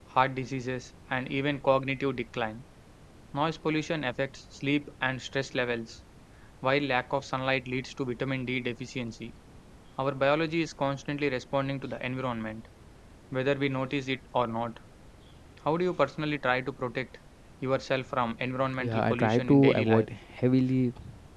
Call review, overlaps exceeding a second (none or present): present